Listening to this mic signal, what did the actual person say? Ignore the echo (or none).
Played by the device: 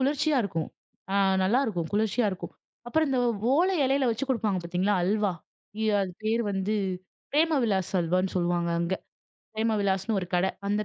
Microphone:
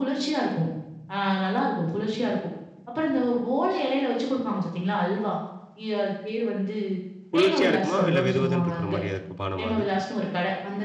குளிர்ச்சியா இருக்குமா? இல்ல வெதுவெதுன்னு இருக்கிற மாரியா இருக்கும் பானமா அது?